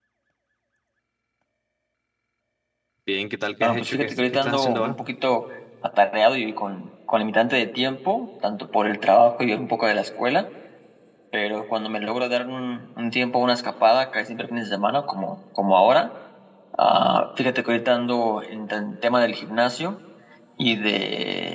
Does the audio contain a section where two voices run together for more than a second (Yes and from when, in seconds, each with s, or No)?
Yes, from 3.6 s